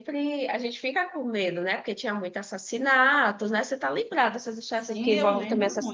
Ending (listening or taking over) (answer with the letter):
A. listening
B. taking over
B